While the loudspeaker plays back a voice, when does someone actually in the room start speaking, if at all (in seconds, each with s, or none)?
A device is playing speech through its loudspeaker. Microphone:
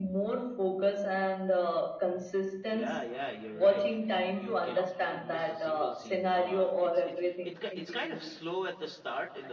2.6 s